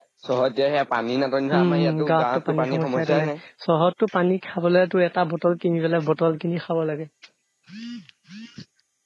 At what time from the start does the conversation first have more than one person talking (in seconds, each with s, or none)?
1.5 s